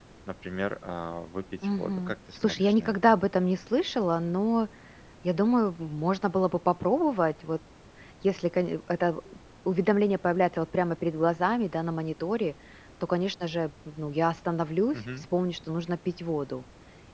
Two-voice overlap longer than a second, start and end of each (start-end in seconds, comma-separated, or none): 1.6-3.2